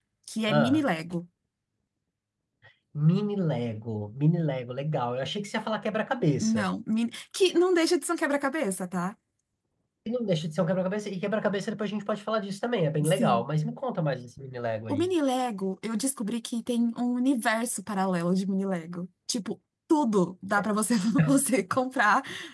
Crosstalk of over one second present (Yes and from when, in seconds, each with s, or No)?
No